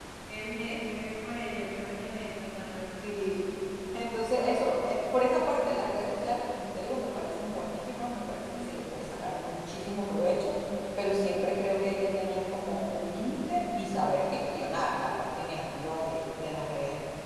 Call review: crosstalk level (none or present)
none